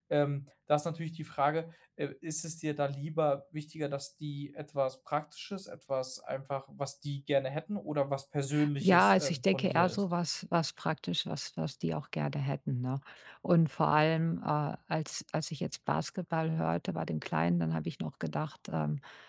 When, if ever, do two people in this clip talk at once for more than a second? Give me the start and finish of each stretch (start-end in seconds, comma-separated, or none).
8.8-10.0